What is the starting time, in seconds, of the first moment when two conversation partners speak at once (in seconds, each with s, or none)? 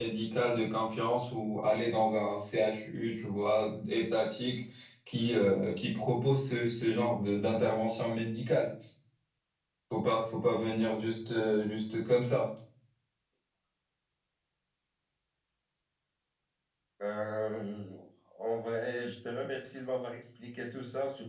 none